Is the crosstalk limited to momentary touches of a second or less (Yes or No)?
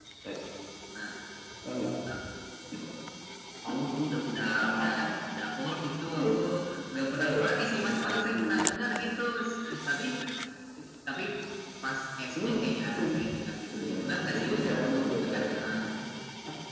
No